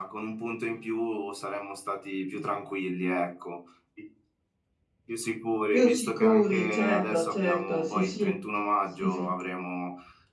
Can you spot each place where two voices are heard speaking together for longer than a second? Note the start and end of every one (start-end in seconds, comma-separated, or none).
5.7-8.3